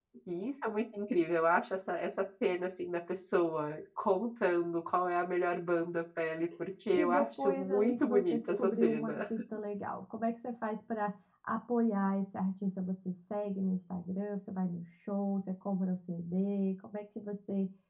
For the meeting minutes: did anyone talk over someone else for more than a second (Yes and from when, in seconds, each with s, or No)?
Yes, from 6.9 s